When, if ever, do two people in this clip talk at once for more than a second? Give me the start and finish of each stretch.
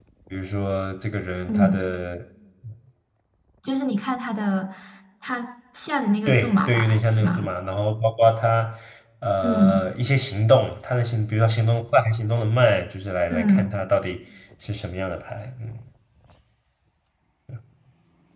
6.3-7.5

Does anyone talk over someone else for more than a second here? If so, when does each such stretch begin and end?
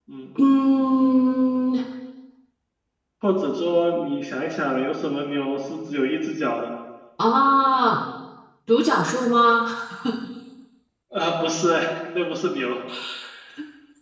none

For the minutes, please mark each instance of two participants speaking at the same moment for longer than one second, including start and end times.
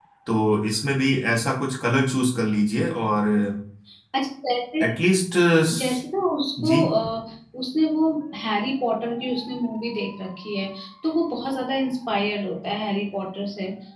none

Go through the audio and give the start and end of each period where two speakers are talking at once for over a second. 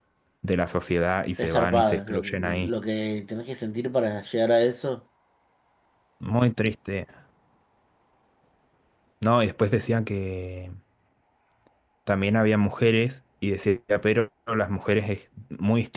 1.4-2.7

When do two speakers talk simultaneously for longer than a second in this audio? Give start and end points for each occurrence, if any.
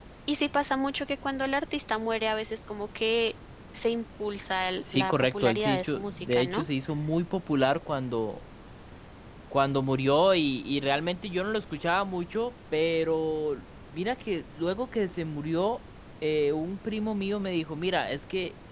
4.9-6.7

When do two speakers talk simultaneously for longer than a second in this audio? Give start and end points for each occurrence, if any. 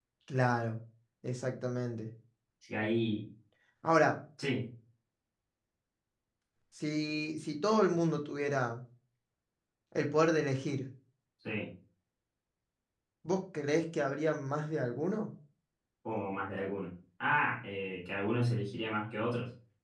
none

